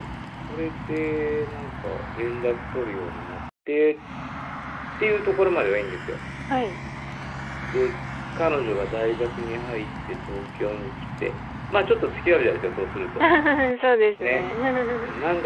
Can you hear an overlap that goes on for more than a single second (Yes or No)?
No